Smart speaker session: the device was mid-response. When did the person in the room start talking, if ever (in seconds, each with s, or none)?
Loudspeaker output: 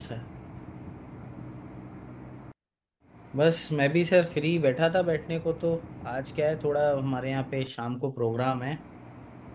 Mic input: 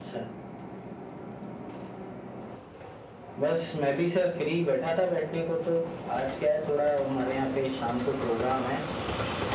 none